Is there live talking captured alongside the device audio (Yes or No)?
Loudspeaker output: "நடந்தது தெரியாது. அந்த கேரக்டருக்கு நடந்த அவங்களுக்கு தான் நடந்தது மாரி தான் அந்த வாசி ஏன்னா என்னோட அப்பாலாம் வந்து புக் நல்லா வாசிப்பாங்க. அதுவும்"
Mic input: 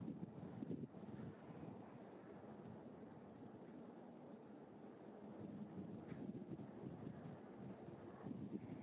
No